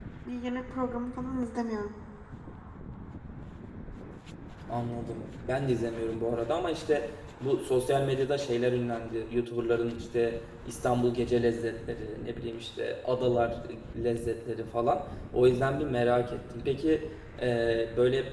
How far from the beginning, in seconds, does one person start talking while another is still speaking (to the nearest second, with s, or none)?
none